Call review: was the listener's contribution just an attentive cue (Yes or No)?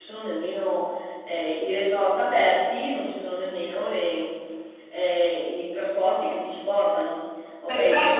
No